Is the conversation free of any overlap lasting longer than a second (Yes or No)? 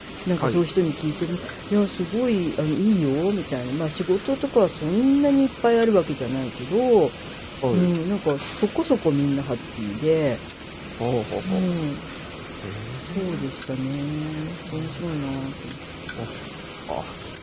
Yes